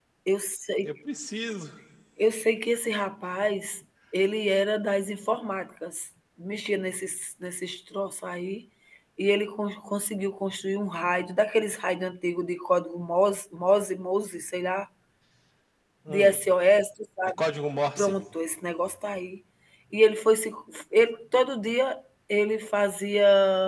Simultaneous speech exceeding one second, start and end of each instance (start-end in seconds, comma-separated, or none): none